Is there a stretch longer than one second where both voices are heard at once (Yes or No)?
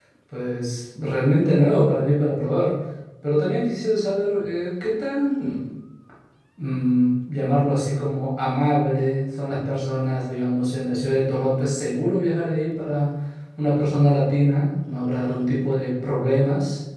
No